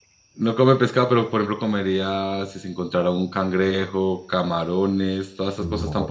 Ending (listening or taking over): taking over